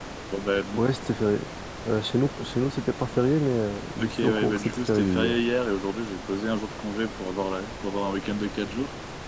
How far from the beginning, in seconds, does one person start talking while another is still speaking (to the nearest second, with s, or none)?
4 s